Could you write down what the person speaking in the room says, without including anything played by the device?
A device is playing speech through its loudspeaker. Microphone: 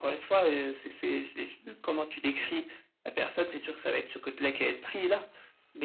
none

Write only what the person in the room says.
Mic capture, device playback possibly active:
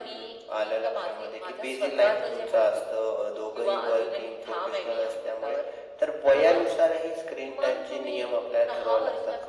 none

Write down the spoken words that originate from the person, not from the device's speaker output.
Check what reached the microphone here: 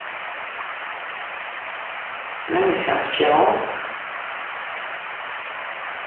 Non, mais c'est inspirant.

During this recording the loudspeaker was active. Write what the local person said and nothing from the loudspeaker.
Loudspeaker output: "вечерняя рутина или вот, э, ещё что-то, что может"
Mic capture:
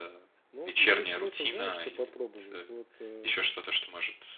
Но имеет смысл, знаешь, что попробовать? Вот, э,

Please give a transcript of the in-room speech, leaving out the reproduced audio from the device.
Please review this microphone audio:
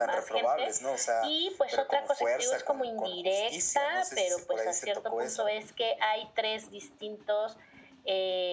none

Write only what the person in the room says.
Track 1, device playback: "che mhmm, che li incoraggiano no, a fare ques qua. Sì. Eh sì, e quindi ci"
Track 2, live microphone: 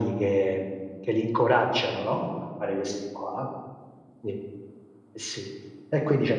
none

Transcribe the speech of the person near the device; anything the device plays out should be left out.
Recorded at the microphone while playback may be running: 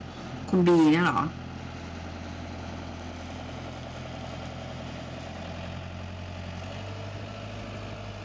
คุณ B เนี่ยเหรอ?

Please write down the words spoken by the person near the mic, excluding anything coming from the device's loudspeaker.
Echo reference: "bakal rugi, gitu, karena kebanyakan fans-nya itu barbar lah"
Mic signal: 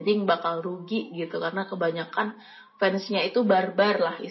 none

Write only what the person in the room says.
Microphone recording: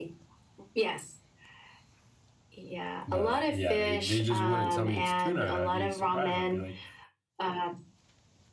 but yeah, they they just wouldn't tell me it's tuna, and I'd be surprised, I'd be like,

